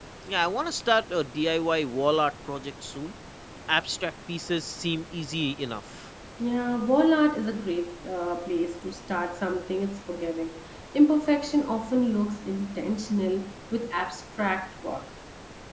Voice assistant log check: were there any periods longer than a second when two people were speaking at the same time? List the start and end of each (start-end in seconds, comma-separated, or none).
none